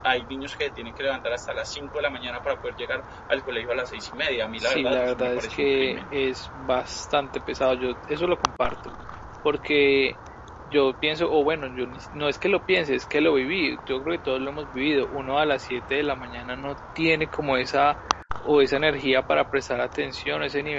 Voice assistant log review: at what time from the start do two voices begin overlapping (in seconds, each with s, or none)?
4.5 s